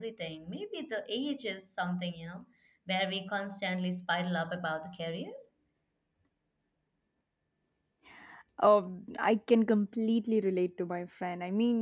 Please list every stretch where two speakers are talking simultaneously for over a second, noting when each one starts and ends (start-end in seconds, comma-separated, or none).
none